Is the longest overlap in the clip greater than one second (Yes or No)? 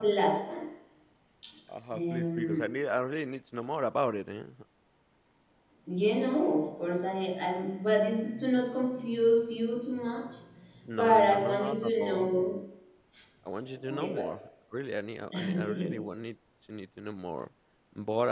Yes